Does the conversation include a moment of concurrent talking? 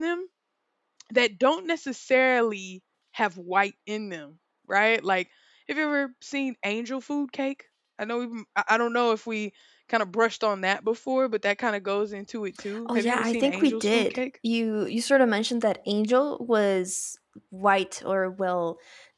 Yes, from 12.9 s

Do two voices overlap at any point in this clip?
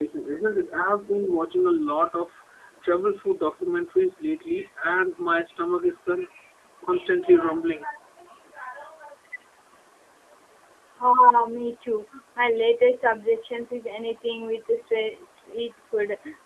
No

